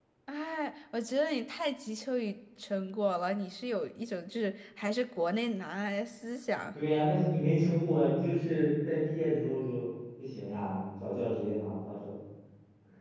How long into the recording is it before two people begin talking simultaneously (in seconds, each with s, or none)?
none